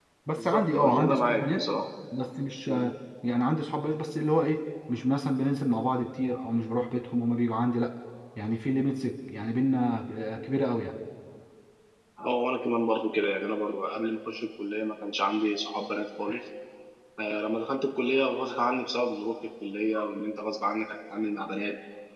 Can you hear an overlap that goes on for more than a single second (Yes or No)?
Yes